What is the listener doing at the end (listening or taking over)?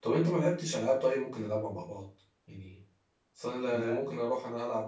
listening